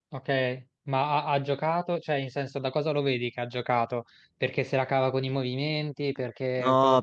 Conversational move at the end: taking over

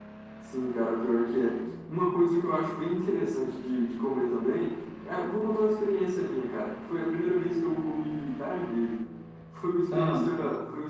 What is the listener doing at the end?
listening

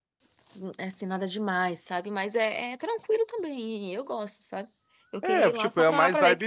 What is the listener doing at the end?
taking over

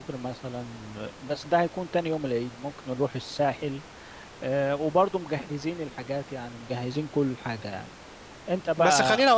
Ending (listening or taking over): taking over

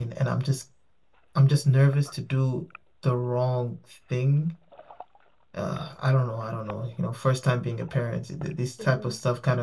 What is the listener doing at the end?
listening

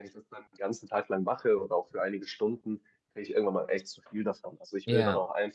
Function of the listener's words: listening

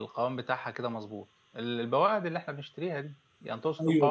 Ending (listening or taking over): taking over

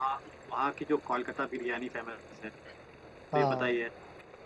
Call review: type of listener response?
listening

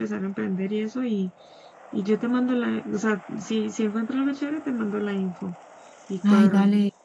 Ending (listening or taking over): taking over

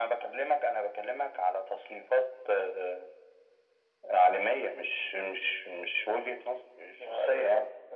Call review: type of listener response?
taking over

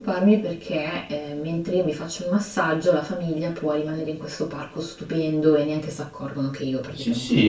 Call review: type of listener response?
taking over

